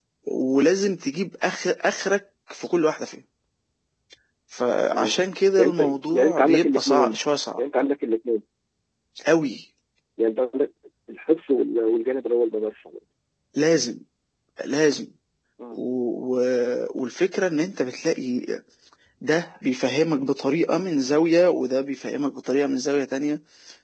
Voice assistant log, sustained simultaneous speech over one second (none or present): present